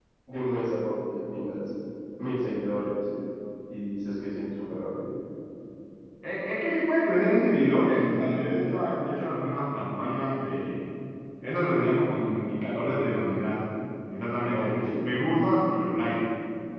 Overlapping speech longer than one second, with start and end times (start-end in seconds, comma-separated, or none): none